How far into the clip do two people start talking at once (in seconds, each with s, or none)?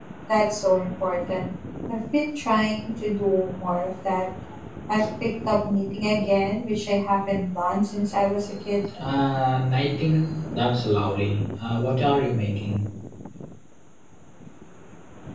none